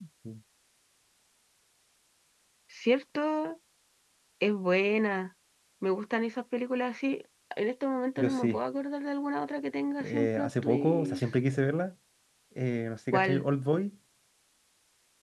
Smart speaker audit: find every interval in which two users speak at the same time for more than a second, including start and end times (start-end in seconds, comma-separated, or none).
10.0-11.2